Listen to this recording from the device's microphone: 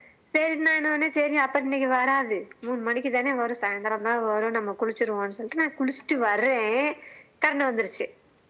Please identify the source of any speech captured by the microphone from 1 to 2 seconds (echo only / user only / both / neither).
echo only